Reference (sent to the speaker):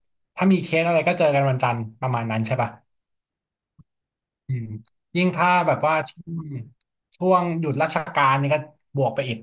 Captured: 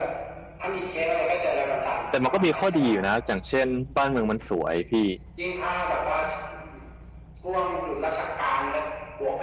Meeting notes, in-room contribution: present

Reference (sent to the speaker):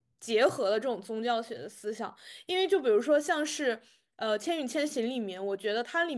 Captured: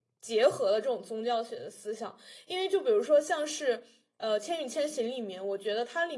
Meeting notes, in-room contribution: none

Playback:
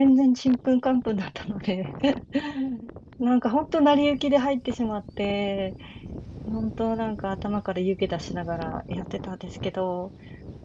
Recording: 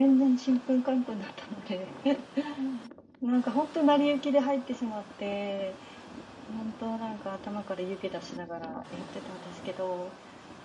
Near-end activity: none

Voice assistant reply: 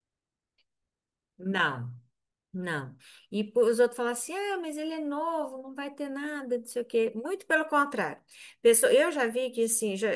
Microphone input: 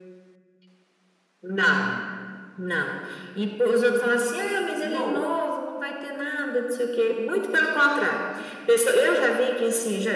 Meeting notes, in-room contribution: present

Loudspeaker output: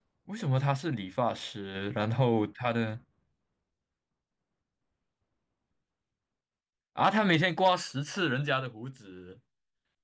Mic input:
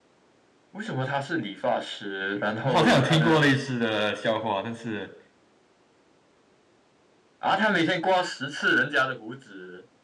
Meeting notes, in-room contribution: present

